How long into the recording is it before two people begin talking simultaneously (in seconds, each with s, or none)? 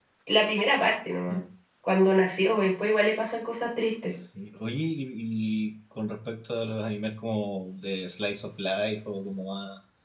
none